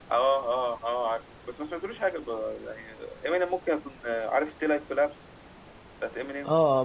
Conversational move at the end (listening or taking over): taking over